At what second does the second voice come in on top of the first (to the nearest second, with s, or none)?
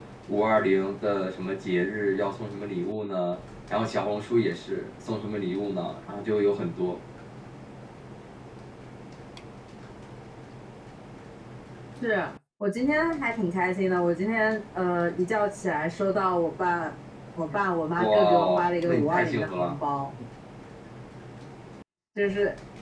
18 s